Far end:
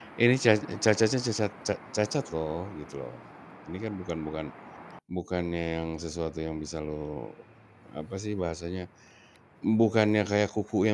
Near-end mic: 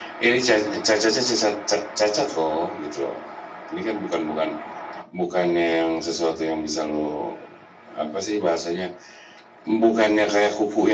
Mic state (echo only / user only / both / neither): echo only